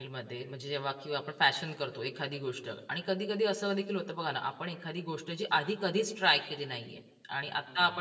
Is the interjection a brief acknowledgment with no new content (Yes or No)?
Yes